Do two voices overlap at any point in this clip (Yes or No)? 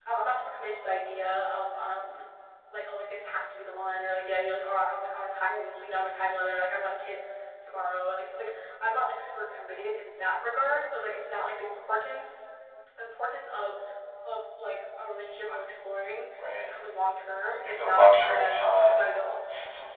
Yes